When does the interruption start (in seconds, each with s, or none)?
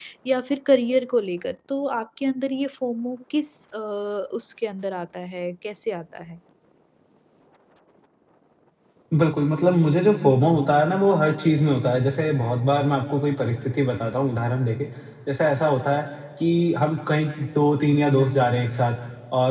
none